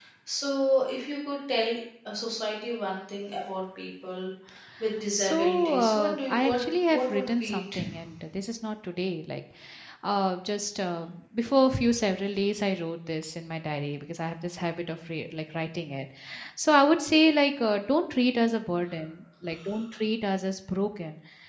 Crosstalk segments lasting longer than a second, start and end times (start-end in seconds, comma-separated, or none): 5.2-7.6